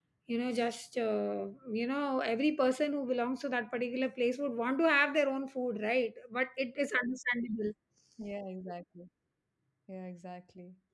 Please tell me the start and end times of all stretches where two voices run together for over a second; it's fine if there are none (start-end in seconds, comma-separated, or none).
none